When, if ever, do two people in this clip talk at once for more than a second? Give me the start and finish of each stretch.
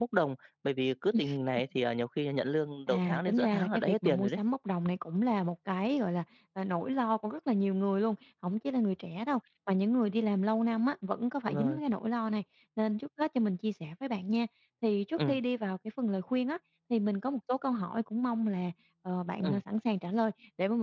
2.9-4.4

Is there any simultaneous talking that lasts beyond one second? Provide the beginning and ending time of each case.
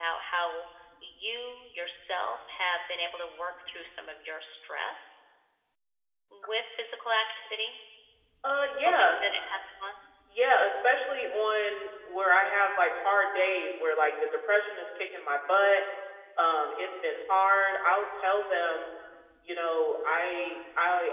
none

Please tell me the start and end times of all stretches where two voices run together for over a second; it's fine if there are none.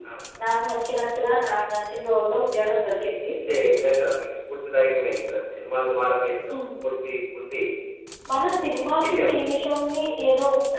none

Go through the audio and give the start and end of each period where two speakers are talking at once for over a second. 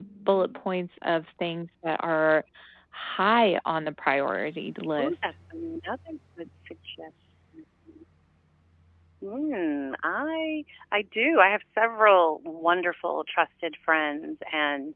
none

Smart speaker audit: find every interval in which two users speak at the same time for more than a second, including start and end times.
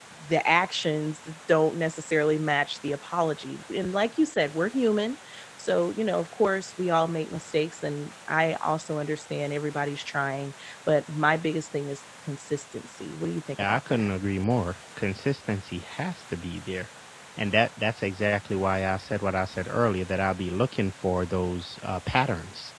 none

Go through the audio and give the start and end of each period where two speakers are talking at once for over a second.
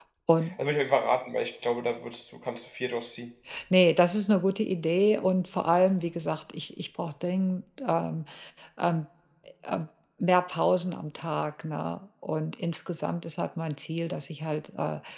none

